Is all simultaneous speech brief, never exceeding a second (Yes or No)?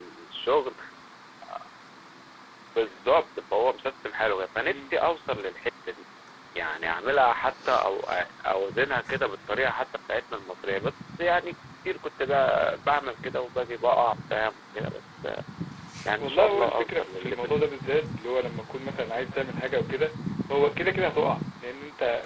No